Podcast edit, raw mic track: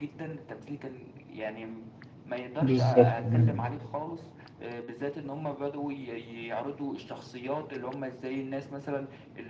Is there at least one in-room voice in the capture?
Yes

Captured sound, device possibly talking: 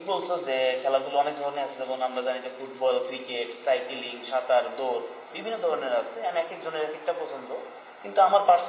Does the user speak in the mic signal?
No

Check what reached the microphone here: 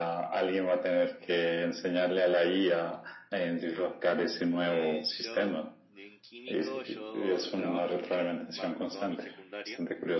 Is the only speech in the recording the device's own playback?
No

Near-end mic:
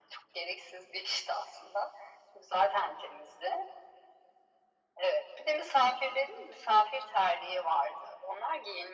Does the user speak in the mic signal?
No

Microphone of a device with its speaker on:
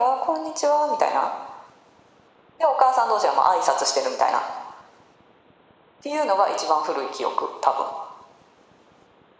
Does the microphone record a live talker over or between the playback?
No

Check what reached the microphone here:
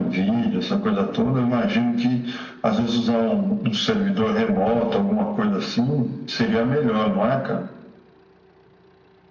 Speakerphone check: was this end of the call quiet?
Yes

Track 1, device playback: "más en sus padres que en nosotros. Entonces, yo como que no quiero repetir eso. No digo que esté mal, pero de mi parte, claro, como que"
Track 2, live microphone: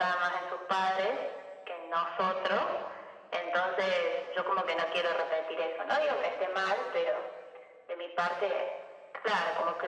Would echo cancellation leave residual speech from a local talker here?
No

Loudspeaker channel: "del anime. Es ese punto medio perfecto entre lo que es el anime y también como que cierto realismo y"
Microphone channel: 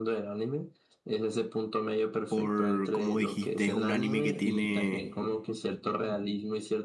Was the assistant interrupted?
Yes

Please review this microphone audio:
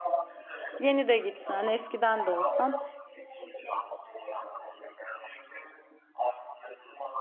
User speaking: Yes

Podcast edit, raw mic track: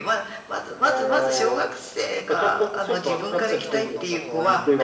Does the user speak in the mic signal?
Yes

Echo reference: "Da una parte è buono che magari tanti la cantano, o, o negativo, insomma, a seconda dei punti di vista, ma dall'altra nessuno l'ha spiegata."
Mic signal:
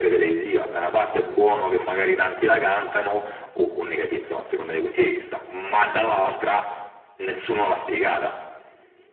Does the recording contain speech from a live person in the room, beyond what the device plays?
No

